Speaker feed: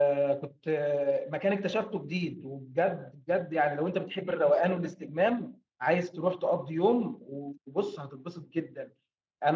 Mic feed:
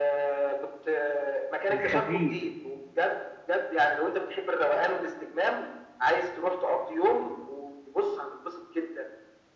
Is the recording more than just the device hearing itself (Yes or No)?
Yes